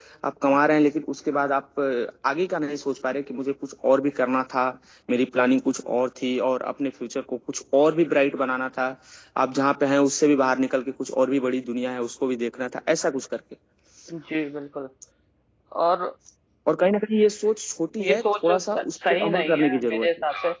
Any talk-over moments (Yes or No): Yes